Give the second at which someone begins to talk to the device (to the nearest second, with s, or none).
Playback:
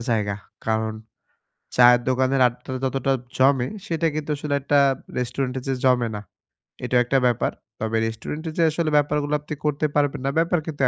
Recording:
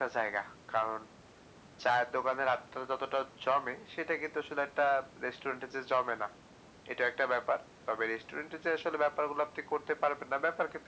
none